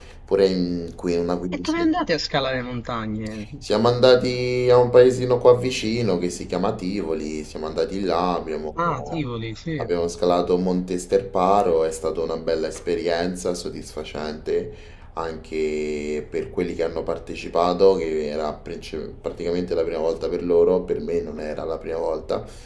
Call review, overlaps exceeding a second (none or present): none